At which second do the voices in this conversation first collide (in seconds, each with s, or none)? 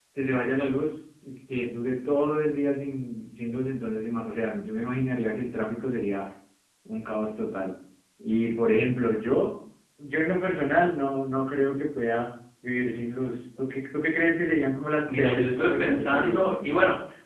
15.1 s